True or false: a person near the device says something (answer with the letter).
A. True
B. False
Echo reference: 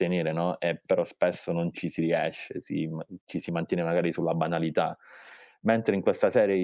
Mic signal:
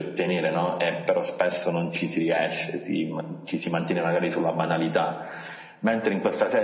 B